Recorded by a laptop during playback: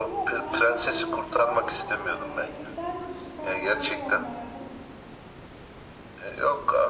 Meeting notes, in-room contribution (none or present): present